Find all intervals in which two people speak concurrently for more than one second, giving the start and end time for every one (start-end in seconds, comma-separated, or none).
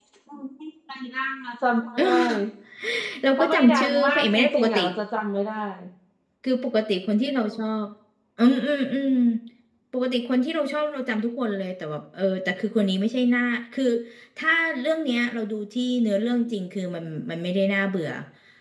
3.4-4.8